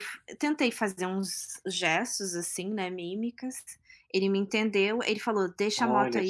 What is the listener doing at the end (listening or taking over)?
listening